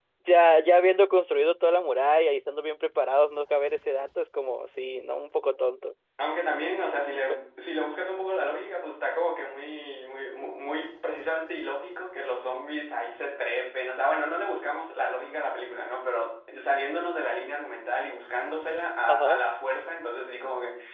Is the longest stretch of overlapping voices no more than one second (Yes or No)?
Yes